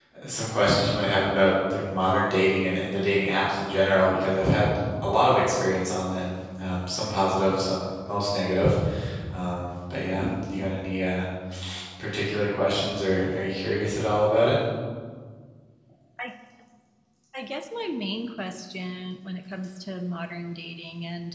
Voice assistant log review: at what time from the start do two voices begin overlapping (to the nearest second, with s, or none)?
none